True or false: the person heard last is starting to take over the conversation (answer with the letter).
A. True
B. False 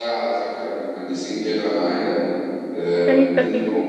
B